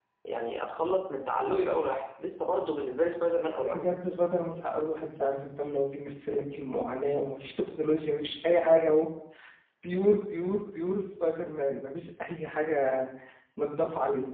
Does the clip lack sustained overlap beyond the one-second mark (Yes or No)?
Yes